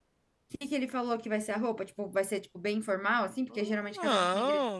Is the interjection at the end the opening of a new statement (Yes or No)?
Yes